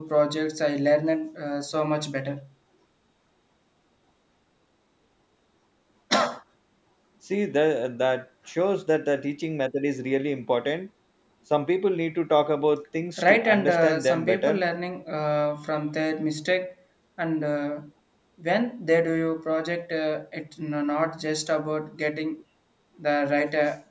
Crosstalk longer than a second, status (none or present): present